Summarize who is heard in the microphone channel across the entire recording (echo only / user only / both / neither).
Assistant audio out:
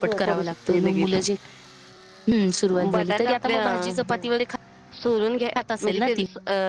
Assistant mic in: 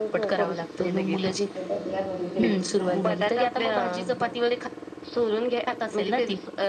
both